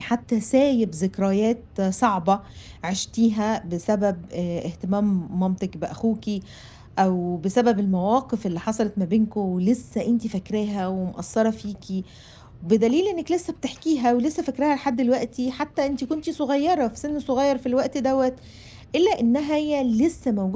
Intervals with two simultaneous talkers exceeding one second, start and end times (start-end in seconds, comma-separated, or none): none